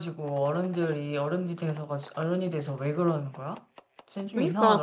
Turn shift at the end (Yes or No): Yes